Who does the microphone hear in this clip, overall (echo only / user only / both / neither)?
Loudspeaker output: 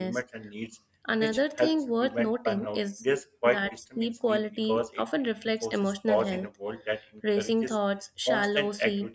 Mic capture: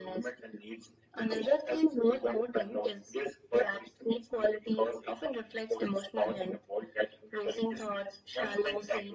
echo only